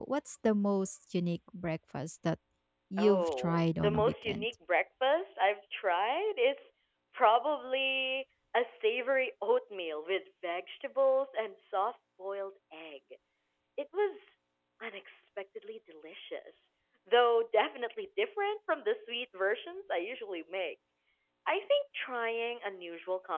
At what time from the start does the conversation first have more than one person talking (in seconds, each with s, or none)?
3.0 s